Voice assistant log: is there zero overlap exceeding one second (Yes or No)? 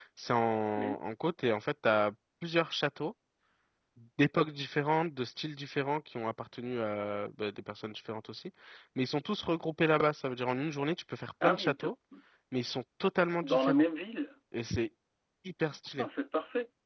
Yes